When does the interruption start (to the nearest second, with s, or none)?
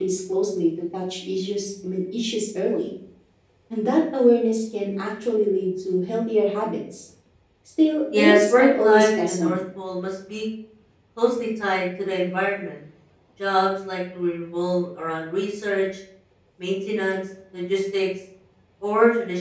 8 s